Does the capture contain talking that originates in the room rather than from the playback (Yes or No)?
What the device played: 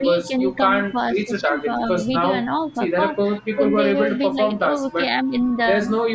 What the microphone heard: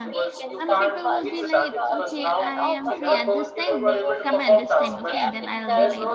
Yes